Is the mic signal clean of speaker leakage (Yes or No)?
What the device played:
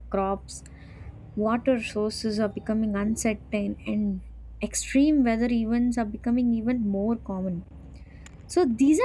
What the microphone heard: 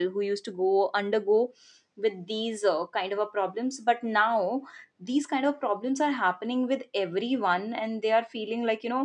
Yes